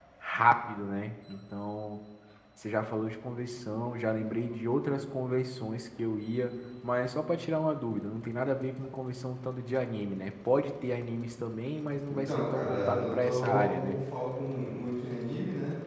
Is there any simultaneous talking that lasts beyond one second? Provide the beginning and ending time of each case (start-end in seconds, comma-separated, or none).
12.1-14.0